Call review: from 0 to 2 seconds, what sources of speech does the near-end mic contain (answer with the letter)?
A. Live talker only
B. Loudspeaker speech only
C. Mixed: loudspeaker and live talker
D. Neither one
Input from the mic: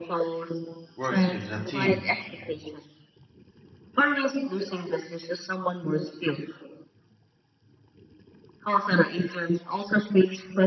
C